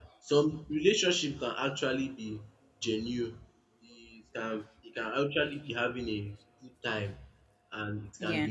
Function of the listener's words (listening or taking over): listening